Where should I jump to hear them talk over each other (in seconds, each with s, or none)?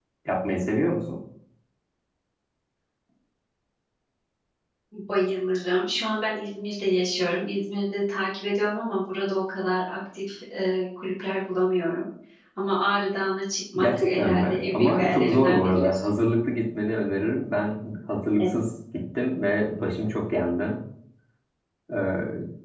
13.8 s